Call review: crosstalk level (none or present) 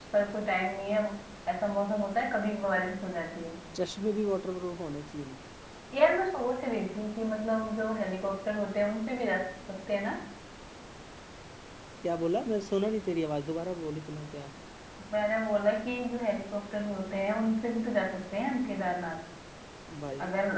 none